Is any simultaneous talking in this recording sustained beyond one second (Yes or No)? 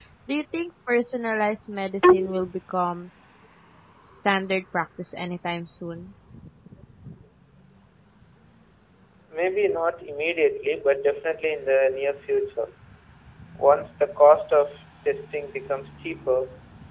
No